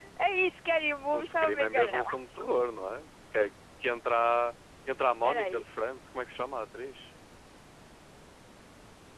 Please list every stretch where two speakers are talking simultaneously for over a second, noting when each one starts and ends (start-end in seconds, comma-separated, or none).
1.1-2.4